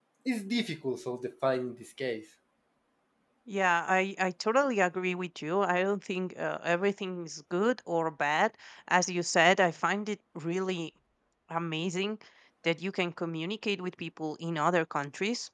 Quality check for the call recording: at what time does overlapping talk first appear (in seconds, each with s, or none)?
none